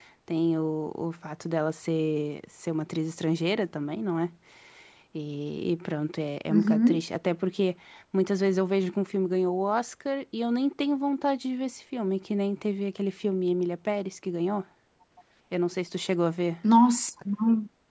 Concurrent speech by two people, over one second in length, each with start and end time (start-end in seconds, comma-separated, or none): none